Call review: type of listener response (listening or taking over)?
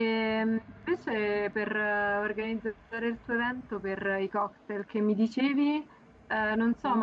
listening